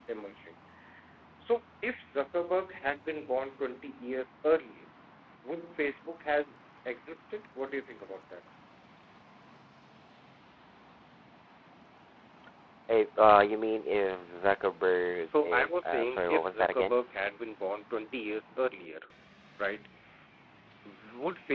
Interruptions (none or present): present